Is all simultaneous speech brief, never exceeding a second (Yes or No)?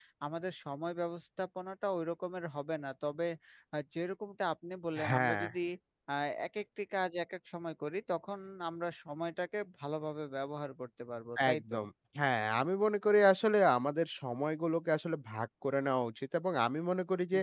Yes